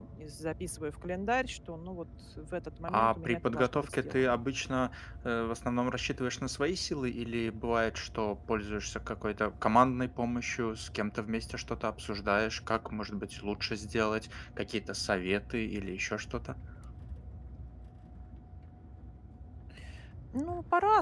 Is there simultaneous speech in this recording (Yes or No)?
Yes